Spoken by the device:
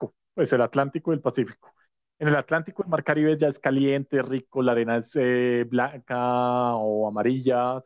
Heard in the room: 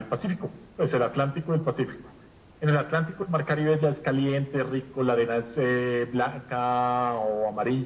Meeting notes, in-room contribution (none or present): none